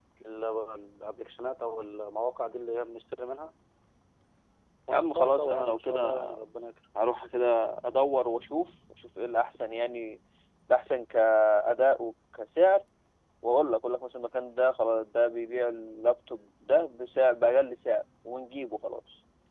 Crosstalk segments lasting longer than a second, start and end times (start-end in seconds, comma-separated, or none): 4.9-6.2